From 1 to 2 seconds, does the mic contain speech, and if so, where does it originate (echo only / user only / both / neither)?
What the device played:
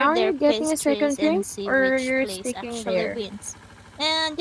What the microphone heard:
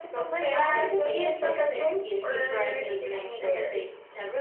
both